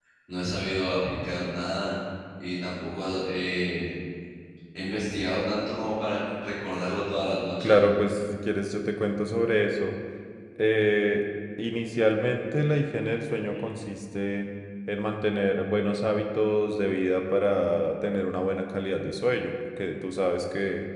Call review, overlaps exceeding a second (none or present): none